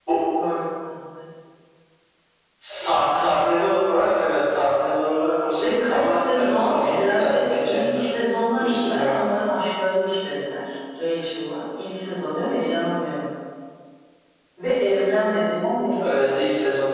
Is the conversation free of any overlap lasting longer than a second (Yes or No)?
No